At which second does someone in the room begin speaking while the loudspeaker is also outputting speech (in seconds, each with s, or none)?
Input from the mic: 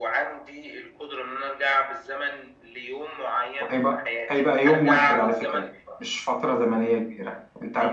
3.6 s